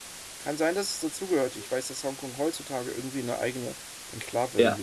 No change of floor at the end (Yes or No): No